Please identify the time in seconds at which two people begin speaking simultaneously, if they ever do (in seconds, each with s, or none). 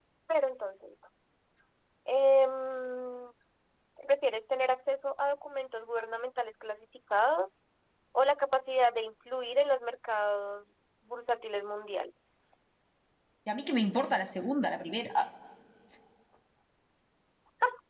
none